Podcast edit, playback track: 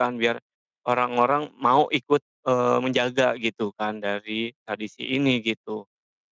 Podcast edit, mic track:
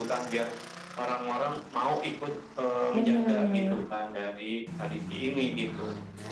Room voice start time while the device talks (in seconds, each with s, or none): 2.9 s